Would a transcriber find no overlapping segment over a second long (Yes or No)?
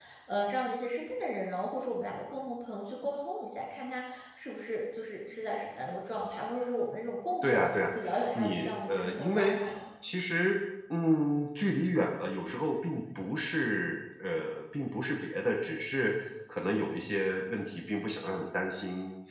No